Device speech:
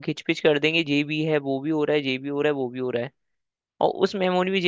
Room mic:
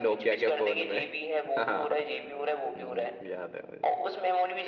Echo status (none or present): present